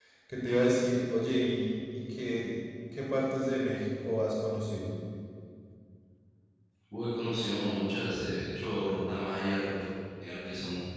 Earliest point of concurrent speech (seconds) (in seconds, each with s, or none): none